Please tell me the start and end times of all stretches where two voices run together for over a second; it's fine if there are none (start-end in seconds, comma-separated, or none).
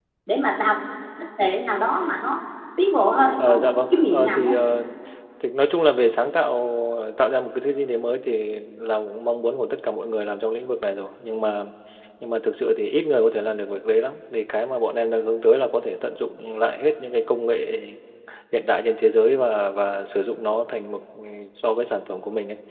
3.4-4.6